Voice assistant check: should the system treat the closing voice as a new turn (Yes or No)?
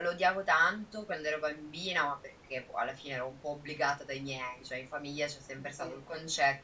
No